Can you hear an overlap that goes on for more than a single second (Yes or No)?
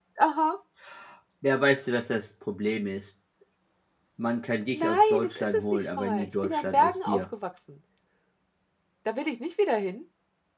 Yes